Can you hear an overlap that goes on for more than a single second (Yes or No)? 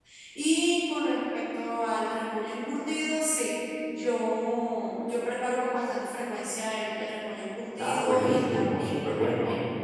Yes